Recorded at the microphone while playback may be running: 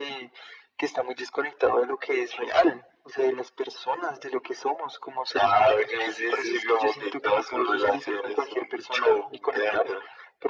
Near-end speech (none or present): none